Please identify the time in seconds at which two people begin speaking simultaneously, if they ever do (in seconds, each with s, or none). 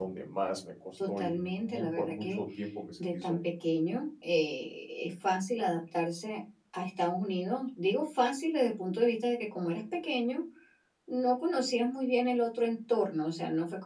1.2 s